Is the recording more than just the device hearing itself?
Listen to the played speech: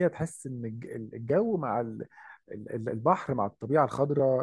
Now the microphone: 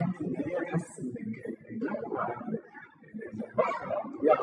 No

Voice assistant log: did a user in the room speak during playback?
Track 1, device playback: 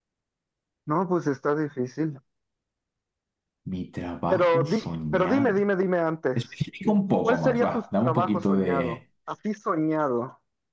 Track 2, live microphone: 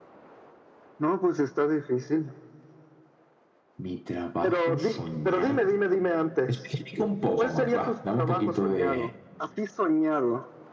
No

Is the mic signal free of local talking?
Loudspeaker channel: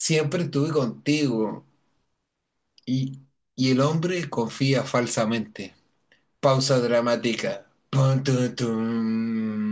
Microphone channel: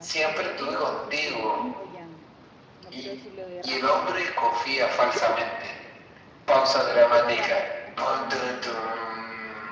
No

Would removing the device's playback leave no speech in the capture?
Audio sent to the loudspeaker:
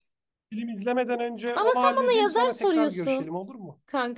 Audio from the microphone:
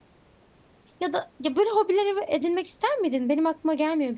No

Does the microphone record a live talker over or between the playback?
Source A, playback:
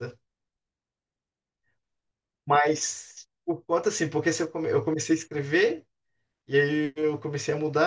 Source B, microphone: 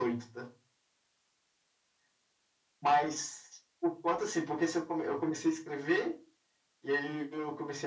No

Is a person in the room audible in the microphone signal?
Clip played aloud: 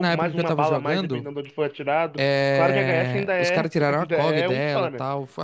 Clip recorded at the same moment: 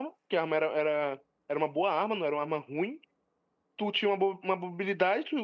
Yes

